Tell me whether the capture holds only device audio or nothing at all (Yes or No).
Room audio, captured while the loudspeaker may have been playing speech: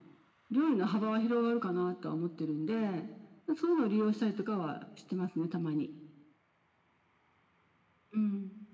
Yes